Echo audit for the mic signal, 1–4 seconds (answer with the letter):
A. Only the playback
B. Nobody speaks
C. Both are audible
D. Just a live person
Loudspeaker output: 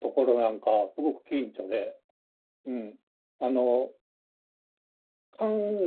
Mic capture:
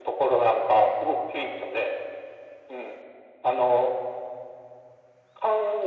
A